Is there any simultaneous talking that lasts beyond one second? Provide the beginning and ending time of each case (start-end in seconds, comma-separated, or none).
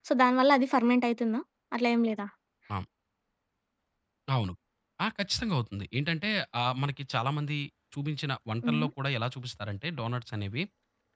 none